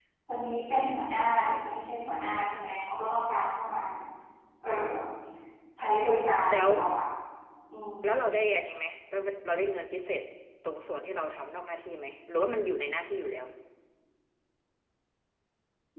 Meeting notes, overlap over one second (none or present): none